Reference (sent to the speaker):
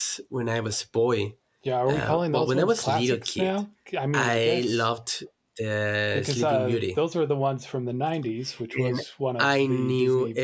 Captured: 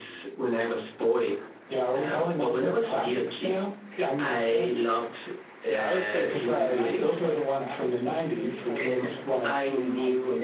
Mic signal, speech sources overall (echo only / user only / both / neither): both